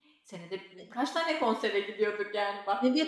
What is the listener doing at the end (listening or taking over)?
taking over